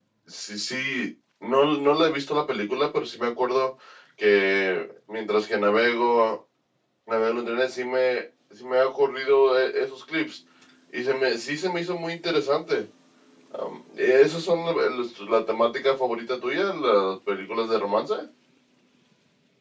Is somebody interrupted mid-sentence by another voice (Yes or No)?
No